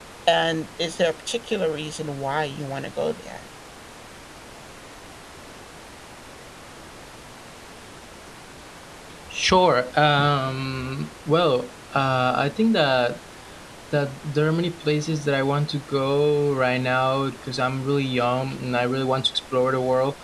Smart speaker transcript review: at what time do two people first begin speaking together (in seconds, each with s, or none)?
none